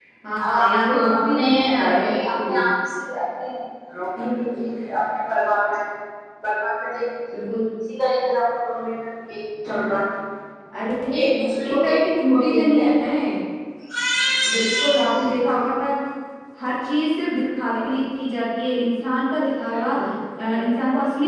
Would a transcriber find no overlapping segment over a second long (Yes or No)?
No